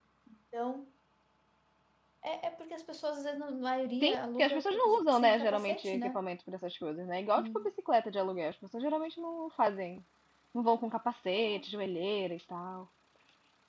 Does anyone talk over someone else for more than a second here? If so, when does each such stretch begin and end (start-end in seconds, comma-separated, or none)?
4.0-6.2